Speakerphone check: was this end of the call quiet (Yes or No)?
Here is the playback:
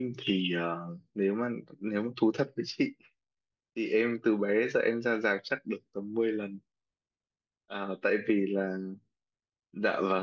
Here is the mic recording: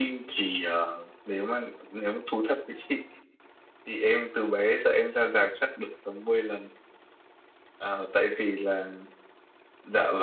Yes